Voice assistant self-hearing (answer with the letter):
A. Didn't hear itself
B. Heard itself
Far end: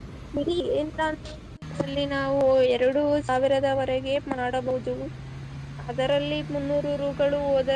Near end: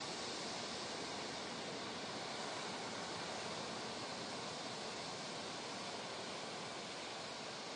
A